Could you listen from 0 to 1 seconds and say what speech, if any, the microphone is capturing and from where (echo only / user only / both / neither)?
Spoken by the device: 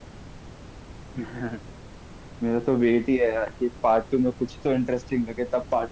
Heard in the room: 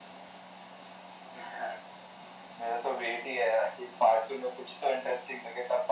neither